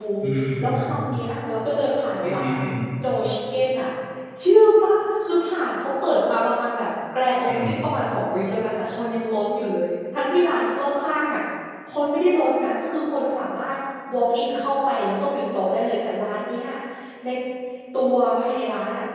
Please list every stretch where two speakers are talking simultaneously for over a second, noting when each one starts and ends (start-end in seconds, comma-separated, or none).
none